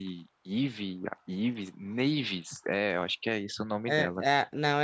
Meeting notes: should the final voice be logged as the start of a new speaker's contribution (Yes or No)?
Yes